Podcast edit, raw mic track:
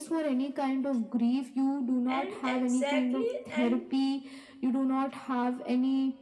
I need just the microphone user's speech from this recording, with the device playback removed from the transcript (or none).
and exactly and